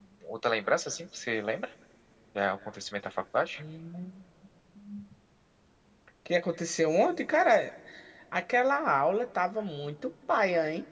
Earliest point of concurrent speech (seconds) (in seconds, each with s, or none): none